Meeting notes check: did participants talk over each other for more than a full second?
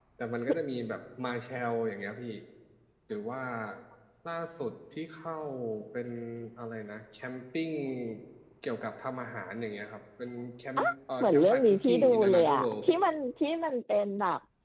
Yes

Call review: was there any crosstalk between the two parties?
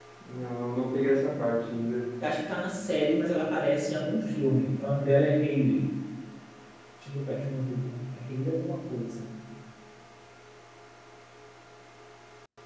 No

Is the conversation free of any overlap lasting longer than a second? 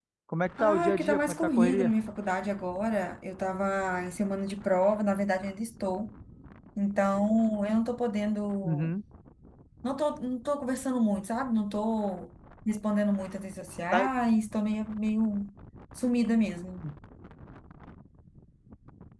No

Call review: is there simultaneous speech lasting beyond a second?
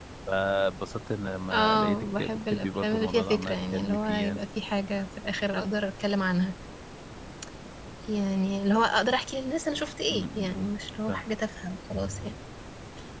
Yes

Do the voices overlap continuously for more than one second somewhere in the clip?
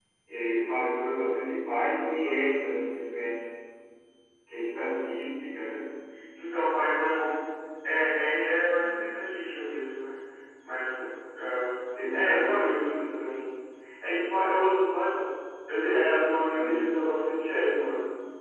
No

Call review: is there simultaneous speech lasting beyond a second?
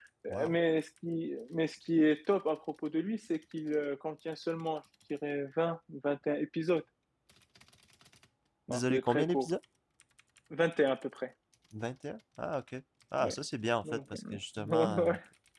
Yes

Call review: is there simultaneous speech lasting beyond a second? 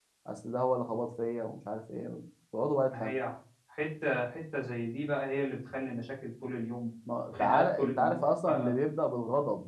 Yes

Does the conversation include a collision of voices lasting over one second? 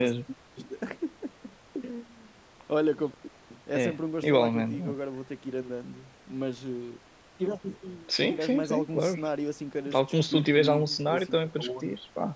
Yes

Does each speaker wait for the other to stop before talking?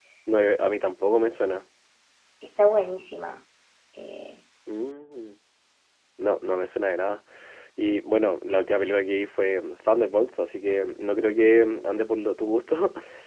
Yes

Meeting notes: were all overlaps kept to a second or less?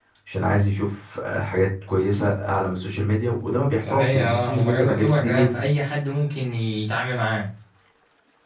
No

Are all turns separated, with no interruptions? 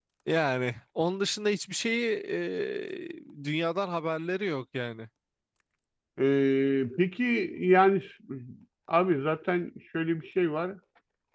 Yes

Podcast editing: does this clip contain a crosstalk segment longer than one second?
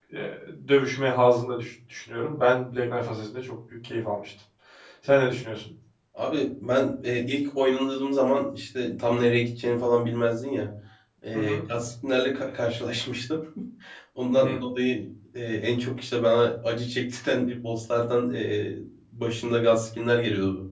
No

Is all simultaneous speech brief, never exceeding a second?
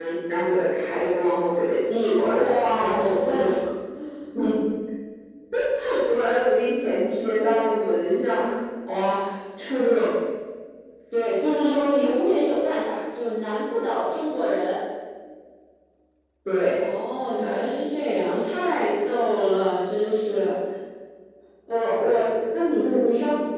No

